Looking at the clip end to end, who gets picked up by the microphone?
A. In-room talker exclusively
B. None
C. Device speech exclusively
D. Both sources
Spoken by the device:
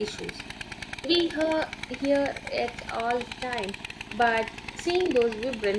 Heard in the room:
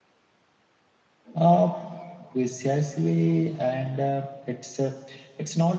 A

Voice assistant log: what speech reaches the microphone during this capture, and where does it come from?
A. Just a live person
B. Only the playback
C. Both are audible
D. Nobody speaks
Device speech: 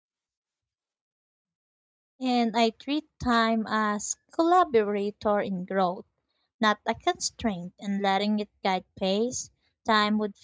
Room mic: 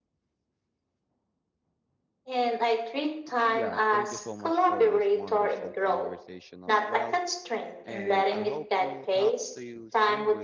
C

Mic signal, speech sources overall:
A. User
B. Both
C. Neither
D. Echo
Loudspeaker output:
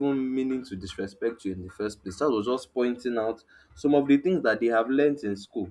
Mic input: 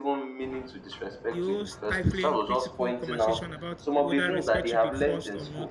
B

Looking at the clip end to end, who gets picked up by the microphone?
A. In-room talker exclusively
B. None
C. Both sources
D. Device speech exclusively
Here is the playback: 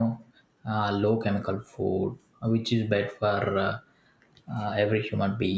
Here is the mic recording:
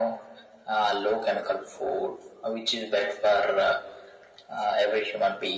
D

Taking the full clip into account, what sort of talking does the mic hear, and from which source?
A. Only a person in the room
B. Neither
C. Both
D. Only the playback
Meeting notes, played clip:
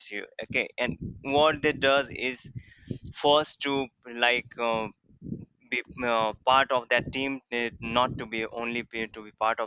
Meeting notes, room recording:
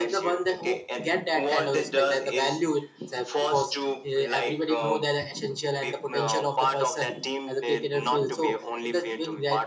C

